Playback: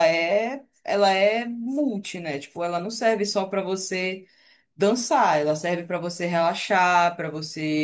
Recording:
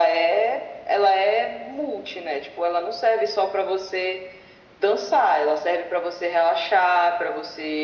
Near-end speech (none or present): none